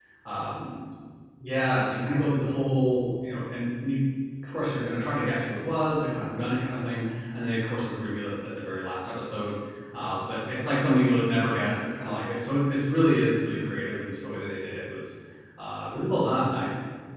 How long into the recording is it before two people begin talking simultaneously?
none

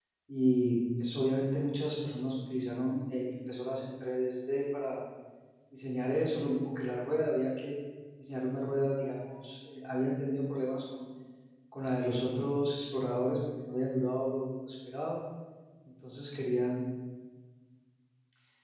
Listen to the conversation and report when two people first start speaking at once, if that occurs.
none

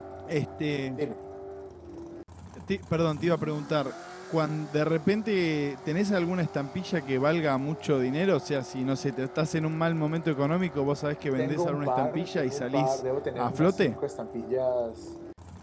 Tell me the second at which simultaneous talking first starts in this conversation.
11.4 s

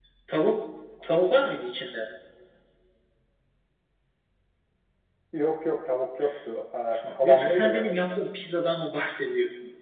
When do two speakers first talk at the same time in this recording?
7.0 s

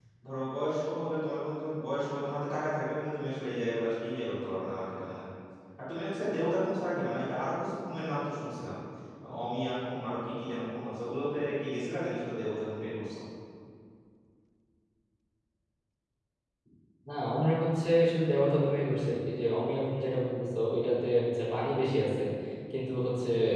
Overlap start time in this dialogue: none

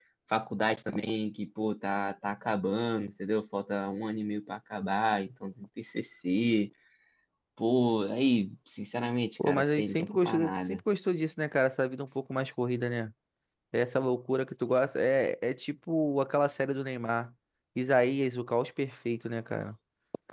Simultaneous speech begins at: 9.4 s

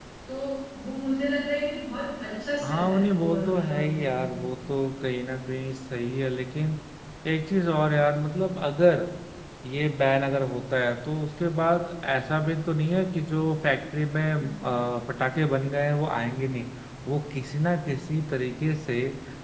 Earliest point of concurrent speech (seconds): 2.6 s

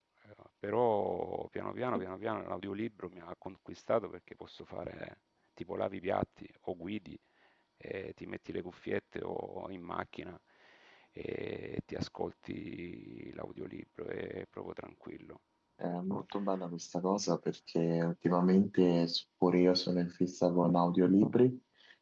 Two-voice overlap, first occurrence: none

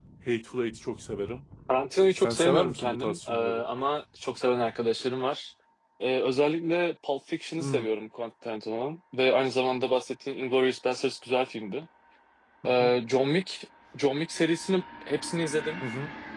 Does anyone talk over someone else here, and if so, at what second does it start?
2.2 s

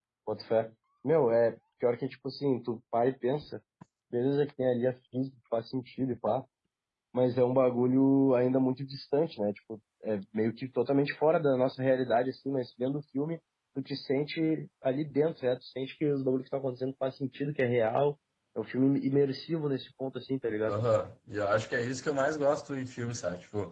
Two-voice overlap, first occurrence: none

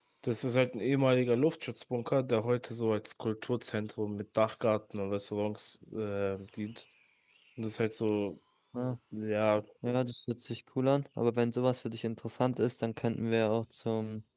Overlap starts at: none

